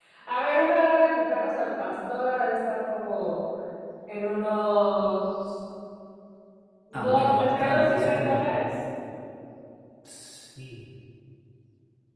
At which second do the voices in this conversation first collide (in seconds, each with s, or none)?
7.0 s